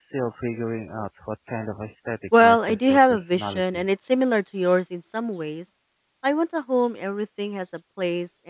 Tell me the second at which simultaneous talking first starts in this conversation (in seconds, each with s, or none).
2.3 s